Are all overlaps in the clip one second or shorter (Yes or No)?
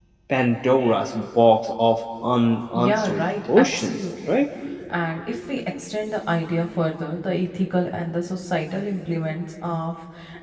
No